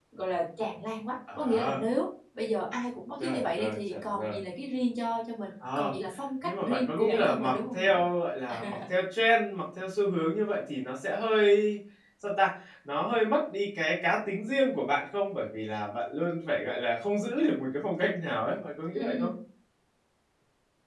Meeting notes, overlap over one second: present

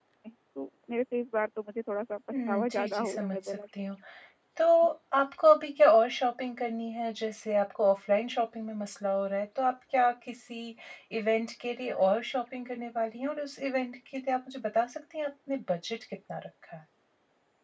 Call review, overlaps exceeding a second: present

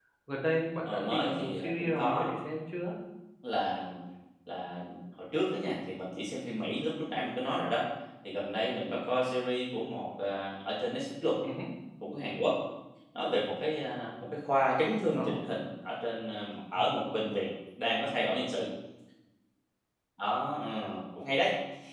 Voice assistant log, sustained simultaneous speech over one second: present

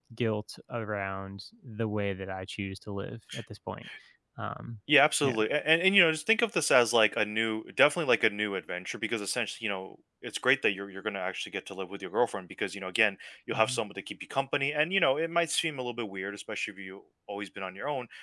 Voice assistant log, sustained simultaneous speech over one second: none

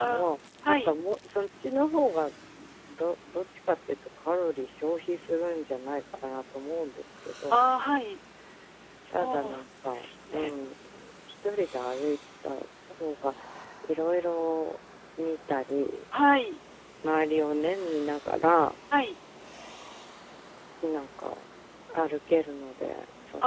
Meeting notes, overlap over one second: present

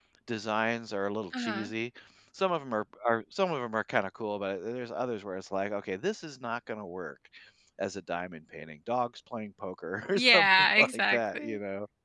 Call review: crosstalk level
present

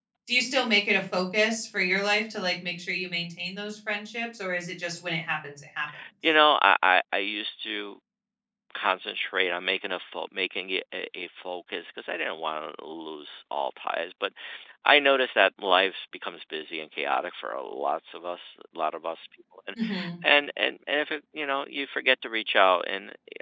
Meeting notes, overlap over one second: none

